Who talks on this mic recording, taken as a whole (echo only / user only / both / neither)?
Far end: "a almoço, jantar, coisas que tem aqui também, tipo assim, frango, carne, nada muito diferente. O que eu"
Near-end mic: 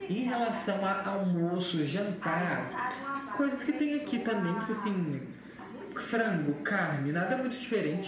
both